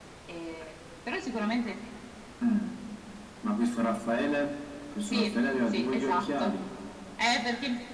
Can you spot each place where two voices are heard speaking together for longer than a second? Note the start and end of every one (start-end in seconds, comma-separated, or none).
5.0-6.5